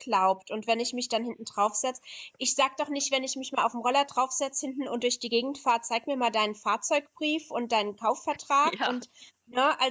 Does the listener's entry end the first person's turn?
No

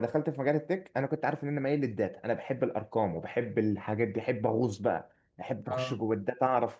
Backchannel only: Yes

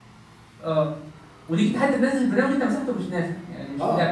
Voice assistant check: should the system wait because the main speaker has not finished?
No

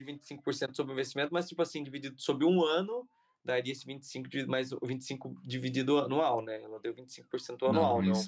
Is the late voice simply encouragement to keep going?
No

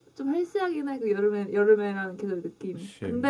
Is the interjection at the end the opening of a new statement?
No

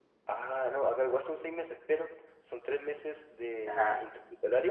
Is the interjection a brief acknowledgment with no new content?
Yes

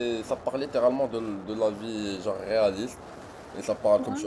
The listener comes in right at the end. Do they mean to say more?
No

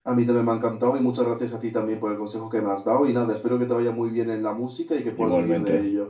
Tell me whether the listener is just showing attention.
No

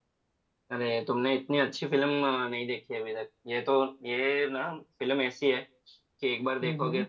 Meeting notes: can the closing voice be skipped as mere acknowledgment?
Yes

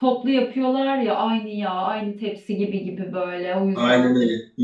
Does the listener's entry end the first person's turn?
Yes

